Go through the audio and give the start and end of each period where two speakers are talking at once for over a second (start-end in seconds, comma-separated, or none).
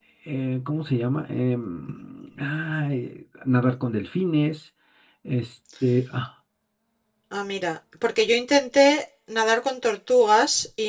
none